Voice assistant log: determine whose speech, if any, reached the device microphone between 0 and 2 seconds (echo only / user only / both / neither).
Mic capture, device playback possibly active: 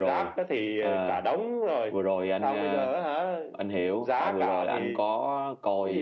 both